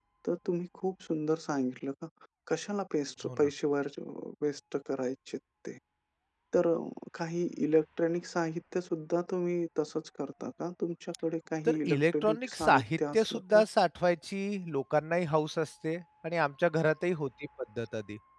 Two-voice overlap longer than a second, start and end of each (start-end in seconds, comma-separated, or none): 11.6-13.6